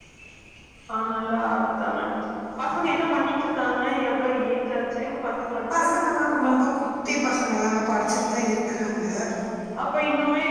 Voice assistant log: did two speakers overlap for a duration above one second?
No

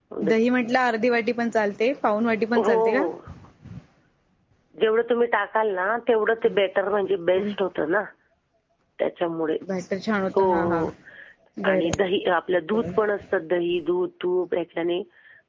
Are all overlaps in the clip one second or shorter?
Yes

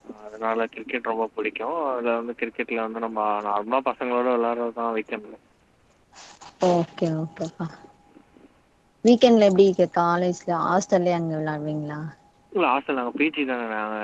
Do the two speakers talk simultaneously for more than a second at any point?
No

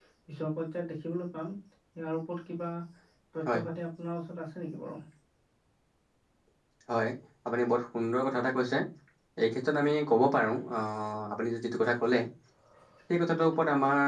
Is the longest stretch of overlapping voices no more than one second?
Yes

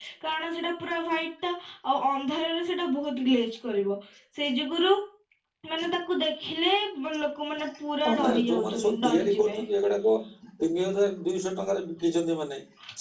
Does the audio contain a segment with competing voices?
Yes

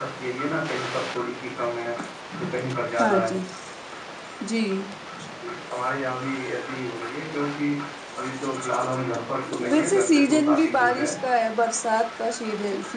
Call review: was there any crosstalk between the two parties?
Yes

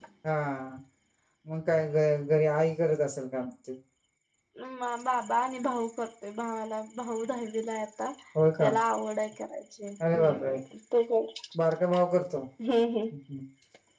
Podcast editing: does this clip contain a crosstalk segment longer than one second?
No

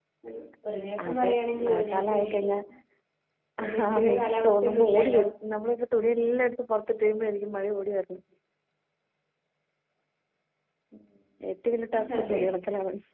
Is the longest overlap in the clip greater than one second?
Yes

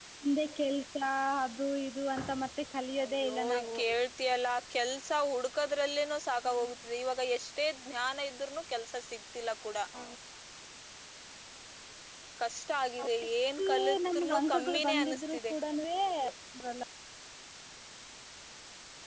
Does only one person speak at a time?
No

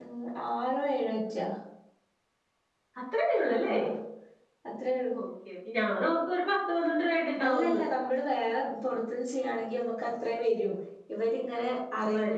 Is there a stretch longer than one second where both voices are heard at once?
No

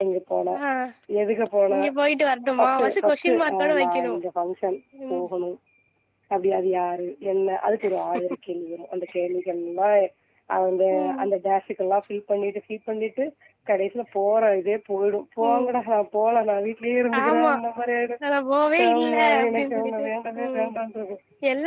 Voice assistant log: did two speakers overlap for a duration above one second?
Yes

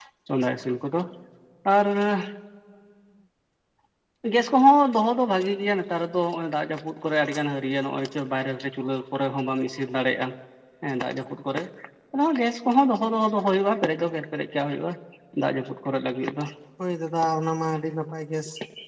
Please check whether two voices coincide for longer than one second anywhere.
No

